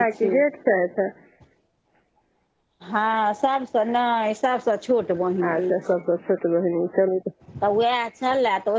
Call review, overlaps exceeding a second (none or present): none